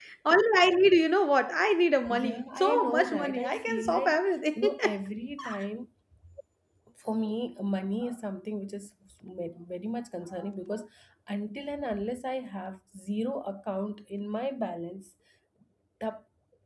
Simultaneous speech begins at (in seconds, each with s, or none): 2.0 s